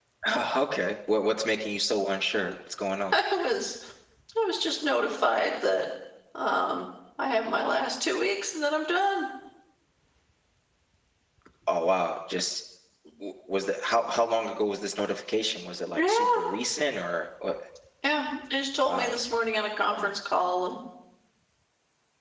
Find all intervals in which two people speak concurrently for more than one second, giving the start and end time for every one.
none

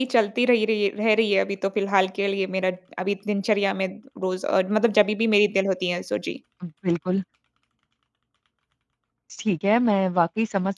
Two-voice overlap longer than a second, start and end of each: none

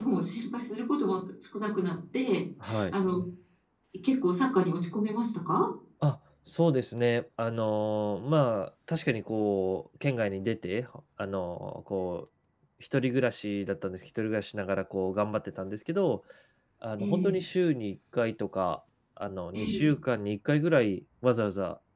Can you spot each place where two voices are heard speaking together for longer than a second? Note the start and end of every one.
none

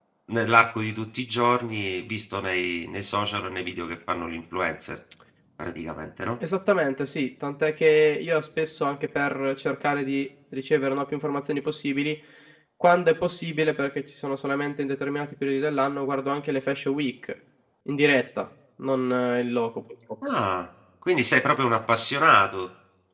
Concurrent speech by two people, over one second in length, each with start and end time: none

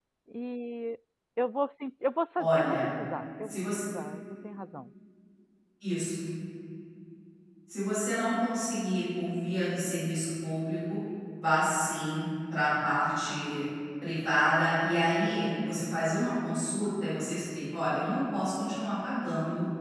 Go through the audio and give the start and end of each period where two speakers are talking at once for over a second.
none

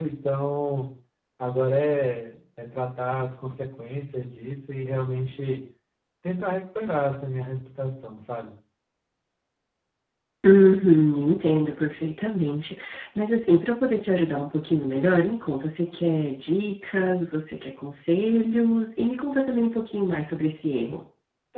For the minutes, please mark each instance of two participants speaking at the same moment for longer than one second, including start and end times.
none

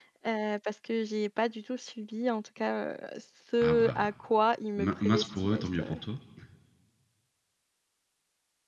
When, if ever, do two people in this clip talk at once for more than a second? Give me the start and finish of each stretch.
4.8-6.0

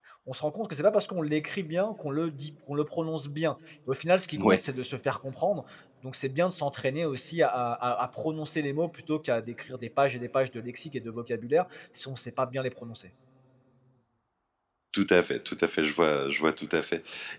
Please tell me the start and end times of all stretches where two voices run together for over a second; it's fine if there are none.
none

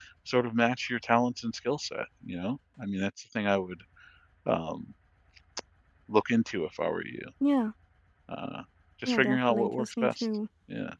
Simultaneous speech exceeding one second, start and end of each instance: 9.1-10.2

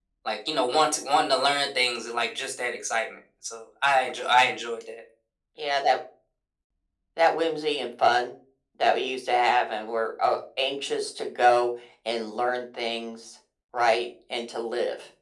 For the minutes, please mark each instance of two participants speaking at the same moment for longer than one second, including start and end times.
none

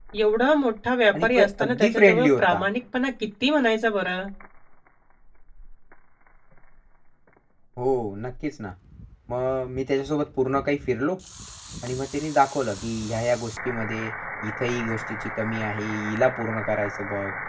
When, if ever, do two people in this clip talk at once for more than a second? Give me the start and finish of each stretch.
1.2-2.6

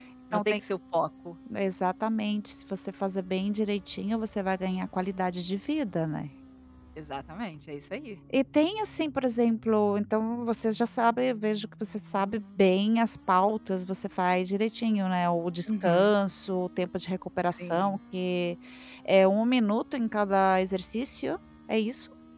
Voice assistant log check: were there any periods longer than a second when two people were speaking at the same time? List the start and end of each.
none

